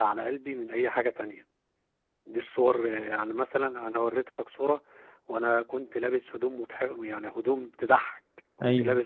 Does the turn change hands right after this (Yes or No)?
No